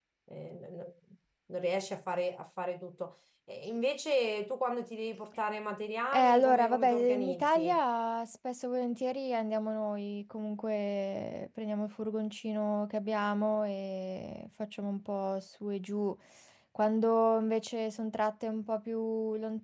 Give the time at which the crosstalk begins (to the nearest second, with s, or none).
6 s